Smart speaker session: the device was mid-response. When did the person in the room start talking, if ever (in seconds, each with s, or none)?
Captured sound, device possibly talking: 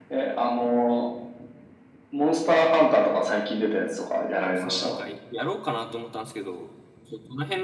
4.5 s